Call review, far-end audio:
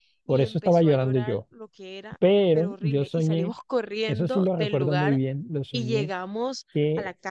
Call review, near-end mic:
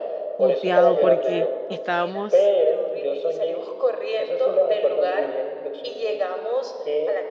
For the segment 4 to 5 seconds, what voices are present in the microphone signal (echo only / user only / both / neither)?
echo only